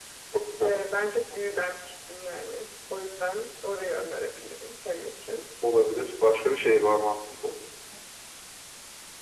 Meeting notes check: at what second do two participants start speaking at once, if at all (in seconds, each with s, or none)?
none